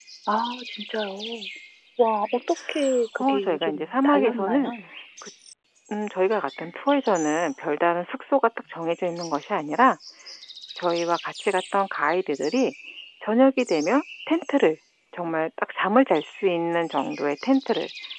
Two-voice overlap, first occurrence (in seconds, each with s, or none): 3.2 s